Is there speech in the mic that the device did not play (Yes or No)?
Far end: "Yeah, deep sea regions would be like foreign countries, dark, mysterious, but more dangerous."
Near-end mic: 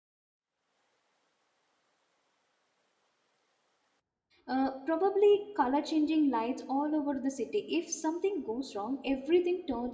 Yes